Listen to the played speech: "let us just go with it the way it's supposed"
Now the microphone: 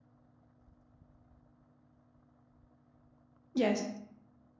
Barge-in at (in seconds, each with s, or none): 3.5 s